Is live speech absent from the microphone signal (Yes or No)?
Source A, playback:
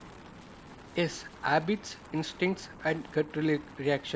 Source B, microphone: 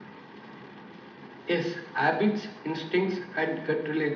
Yes